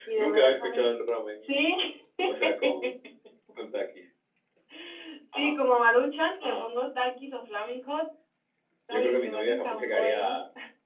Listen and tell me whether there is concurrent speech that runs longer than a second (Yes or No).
Yes